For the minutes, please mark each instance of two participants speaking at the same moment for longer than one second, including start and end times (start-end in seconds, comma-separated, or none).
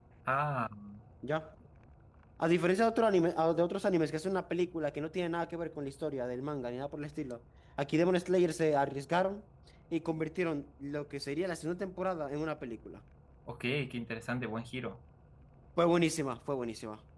none